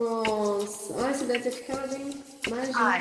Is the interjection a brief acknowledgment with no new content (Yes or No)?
No